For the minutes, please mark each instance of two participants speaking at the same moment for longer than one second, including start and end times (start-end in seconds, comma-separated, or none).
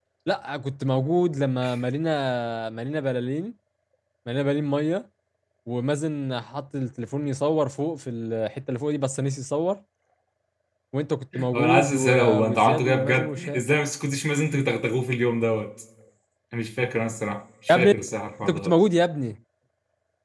11.5-13.6